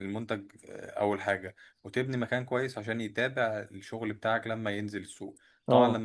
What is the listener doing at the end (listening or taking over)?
listening